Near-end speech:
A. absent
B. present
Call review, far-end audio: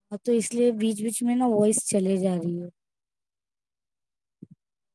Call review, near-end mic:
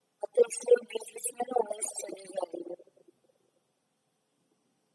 A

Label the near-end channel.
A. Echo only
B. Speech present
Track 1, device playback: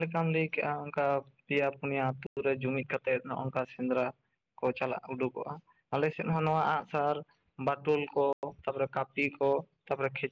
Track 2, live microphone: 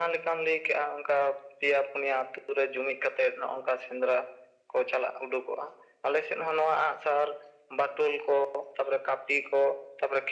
A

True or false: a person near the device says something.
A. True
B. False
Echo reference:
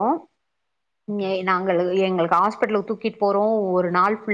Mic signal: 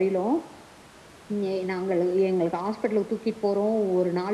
B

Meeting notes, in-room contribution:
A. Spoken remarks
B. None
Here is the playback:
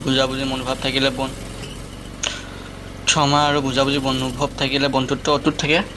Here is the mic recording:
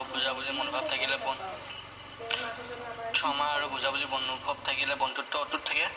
A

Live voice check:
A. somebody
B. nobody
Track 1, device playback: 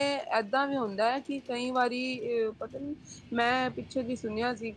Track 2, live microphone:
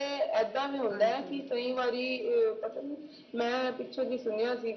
A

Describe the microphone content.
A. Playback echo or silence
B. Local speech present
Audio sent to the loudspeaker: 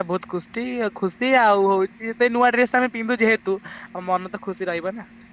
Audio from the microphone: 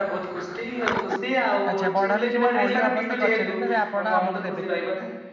B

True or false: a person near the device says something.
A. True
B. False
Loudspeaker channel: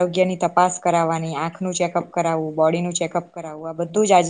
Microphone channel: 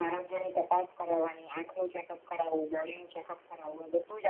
B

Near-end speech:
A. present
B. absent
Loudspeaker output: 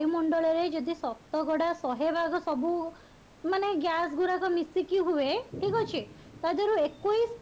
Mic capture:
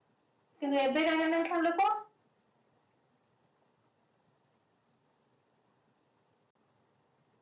A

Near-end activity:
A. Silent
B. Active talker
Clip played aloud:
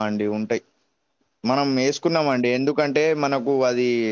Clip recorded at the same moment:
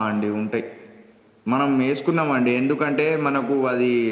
A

